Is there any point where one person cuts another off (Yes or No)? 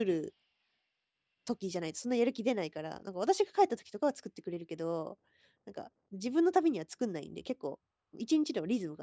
No